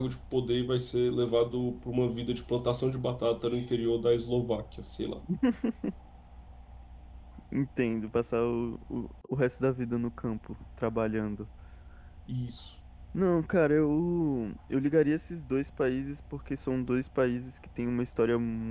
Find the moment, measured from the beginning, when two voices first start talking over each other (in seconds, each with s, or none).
none